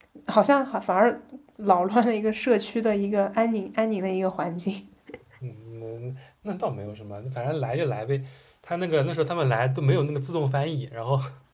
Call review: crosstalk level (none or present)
none